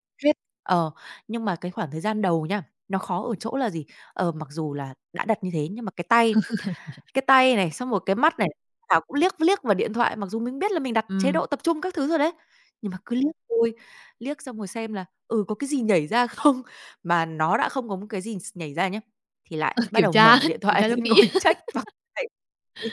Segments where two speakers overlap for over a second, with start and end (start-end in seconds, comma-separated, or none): 19.9-21.2